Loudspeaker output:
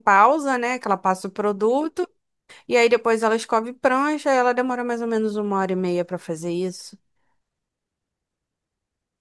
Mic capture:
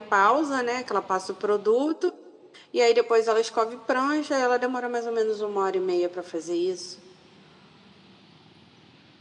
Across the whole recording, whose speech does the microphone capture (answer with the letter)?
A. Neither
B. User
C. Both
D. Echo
D